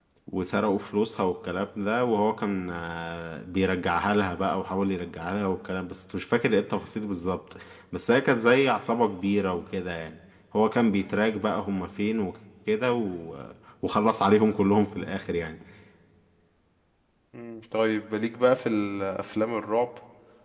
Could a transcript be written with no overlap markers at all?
Yes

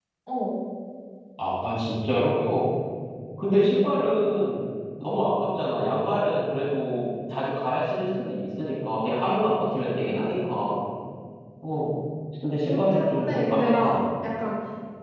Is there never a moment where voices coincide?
No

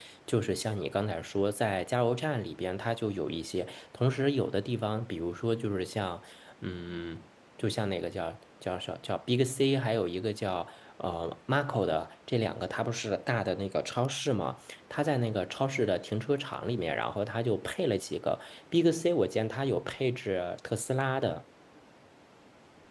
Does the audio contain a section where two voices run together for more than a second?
No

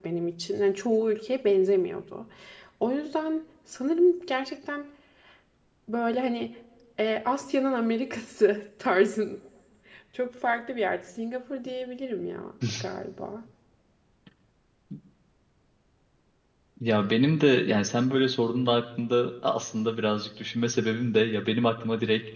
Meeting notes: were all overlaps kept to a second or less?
Yes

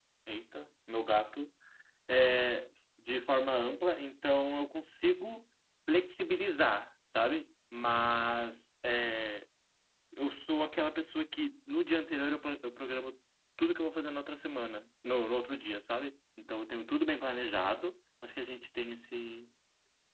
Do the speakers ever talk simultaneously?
No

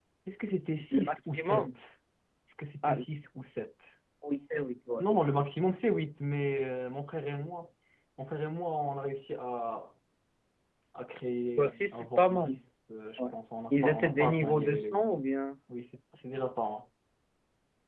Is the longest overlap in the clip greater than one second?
Yes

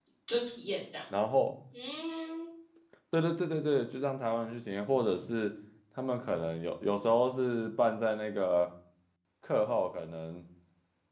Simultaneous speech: No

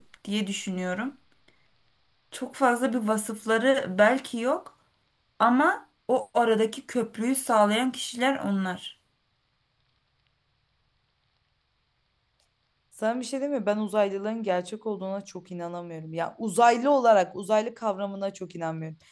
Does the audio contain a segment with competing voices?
No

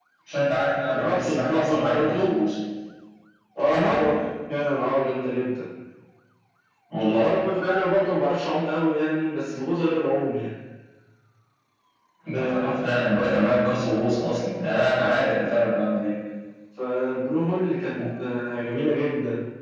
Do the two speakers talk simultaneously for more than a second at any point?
Yes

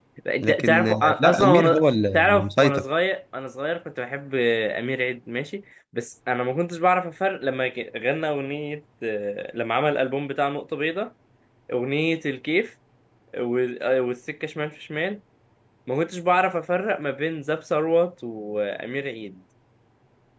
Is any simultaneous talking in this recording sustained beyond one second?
Yes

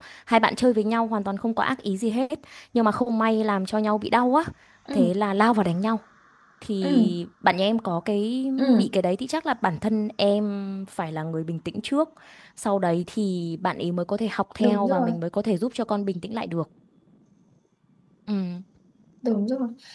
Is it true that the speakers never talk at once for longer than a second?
Yes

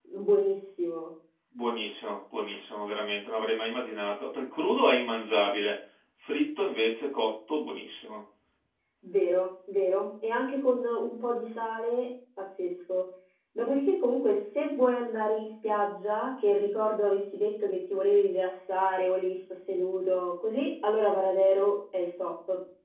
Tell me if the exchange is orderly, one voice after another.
Yes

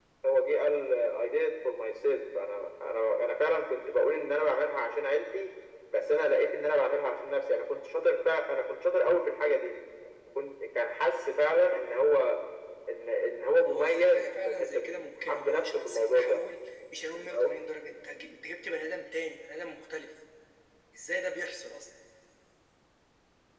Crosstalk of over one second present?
Yes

